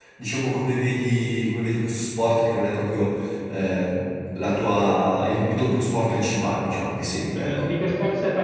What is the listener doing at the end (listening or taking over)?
taking over